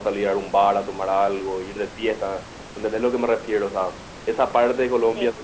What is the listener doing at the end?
listening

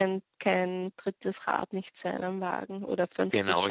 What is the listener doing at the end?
taking over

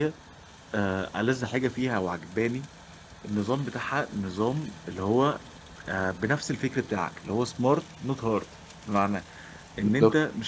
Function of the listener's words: listening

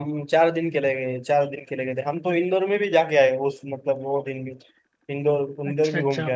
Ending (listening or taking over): taking over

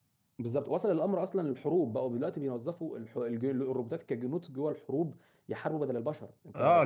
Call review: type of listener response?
taking over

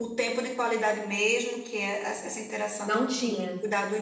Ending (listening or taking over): listening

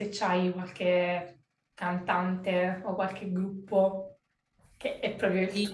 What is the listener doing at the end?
taking over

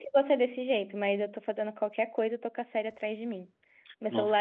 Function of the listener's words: listening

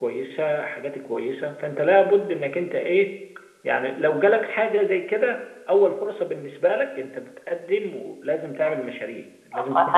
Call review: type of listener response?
taking over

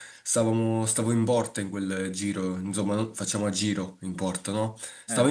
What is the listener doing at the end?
listening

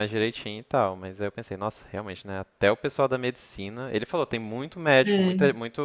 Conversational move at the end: listening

